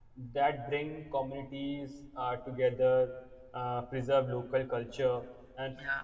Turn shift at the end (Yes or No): No